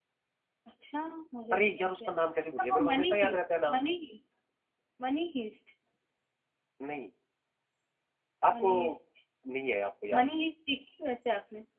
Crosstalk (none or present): present